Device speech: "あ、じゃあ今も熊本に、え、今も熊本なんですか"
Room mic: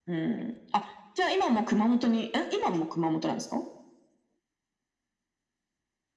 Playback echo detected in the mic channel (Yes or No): Yes